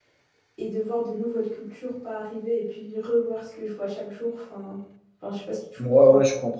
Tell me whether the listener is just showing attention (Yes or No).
No